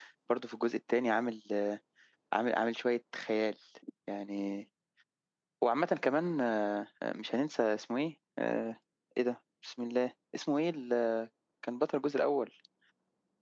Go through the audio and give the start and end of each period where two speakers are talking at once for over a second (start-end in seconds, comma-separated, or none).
none